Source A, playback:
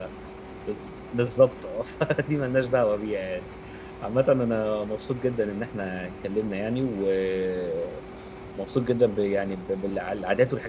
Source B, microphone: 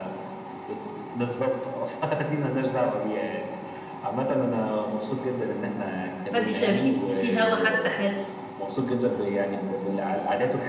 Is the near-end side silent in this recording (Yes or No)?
No